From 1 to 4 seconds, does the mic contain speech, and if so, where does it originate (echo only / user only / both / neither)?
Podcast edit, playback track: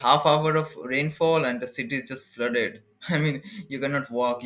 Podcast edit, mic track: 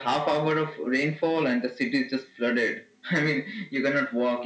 echo only